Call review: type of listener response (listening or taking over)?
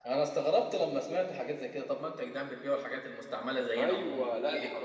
taking over